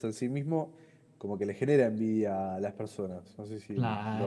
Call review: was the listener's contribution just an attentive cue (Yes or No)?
No